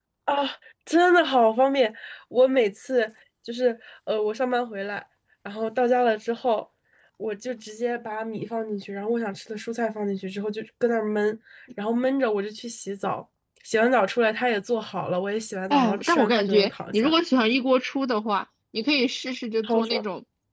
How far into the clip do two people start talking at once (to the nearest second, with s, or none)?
16 s